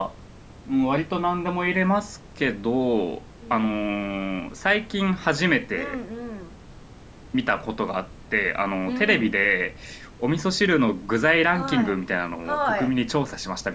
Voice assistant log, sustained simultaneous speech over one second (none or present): none